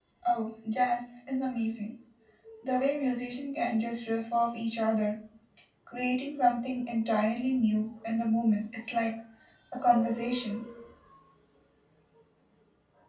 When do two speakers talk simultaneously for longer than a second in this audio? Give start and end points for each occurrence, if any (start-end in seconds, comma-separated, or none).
none